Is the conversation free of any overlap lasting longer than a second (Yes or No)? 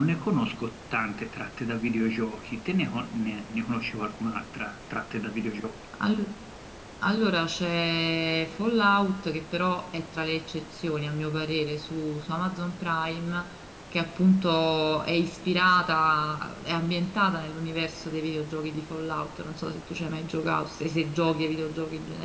Yes